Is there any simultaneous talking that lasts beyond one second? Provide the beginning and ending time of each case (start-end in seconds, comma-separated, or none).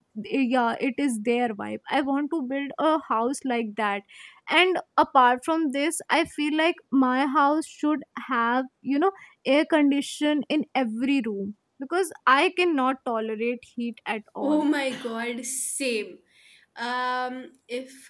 none